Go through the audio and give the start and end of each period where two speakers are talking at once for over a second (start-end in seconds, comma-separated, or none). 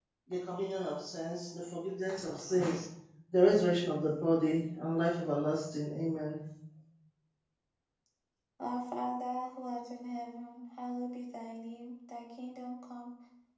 none